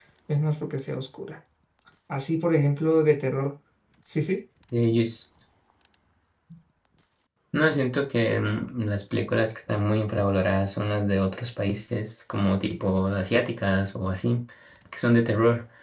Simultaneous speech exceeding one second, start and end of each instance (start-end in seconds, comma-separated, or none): none